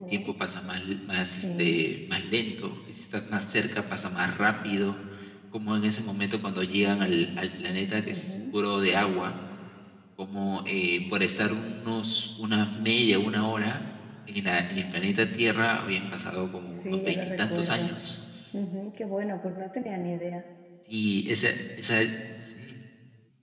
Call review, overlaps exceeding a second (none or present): present